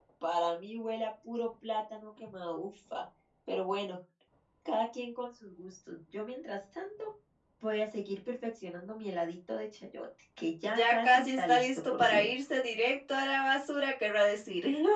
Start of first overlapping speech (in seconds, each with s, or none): 10.7 s